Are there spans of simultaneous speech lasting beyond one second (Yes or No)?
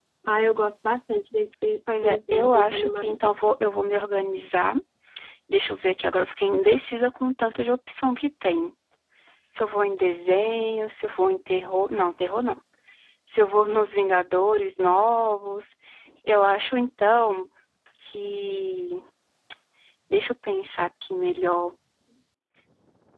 Yes